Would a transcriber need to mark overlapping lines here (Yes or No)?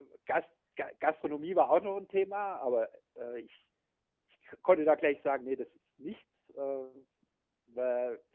No